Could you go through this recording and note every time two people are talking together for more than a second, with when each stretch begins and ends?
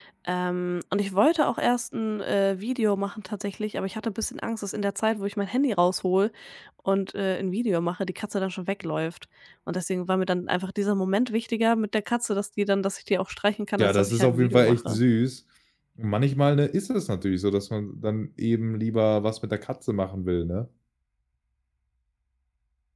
13.8-15.0

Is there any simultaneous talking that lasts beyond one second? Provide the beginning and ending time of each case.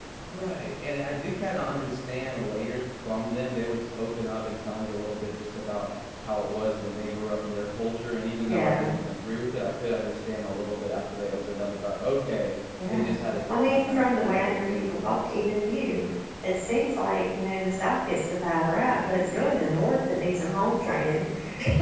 13.5-15.4

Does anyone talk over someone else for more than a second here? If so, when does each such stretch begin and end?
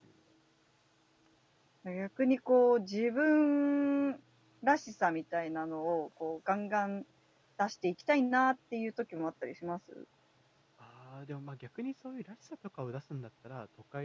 none

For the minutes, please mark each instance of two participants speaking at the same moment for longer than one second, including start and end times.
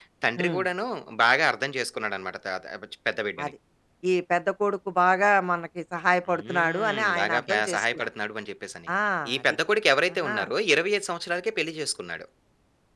6.3-8.1

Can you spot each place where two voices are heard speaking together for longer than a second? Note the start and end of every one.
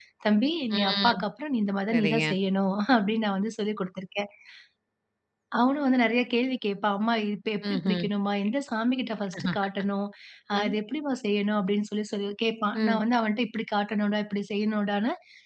none

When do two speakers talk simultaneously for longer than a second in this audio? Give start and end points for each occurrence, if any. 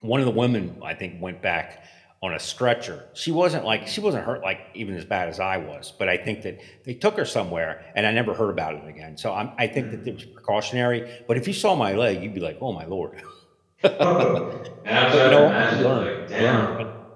15.1-16.6

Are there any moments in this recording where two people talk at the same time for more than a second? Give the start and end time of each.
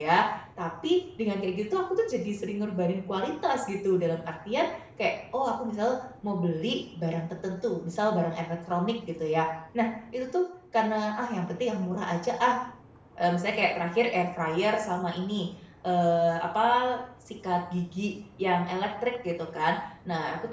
none

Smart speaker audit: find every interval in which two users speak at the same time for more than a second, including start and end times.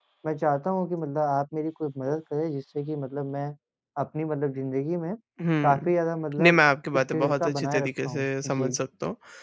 6.4-8.7

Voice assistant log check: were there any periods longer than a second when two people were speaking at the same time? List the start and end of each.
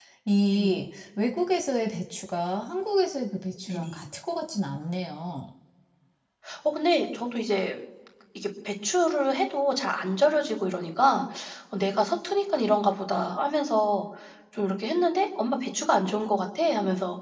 none

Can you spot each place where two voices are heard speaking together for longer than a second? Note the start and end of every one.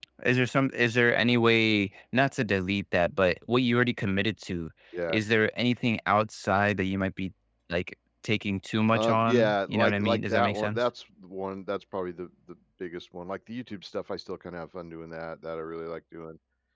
8.9-10.8

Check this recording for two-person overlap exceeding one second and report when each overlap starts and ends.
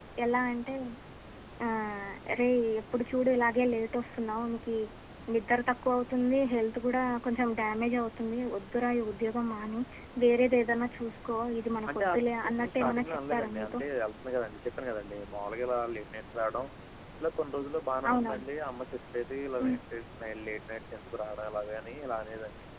11.9-13.8

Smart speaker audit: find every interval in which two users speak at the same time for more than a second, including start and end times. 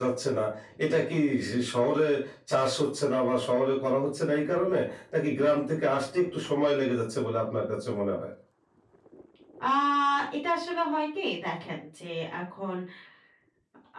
none

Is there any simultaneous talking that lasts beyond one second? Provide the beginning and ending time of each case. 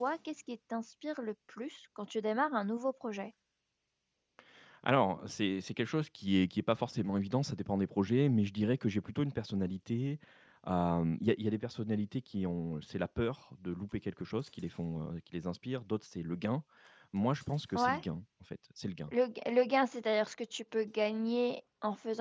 none

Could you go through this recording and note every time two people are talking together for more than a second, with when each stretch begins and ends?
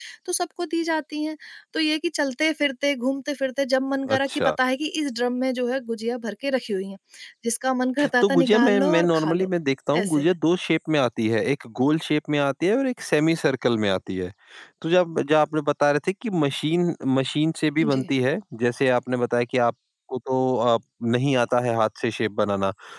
8.2-9.5

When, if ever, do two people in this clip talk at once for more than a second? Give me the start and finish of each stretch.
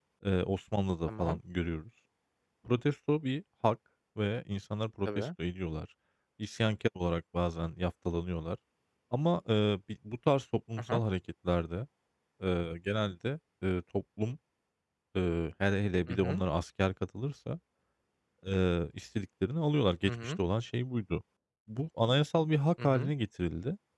none

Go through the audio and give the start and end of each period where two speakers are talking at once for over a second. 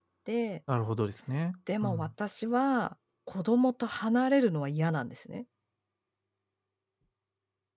none

